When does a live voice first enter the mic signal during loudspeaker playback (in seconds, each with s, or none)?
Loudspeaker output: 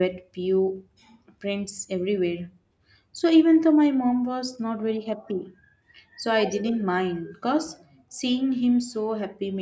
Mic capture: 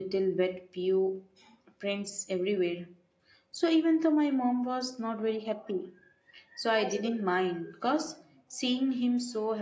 none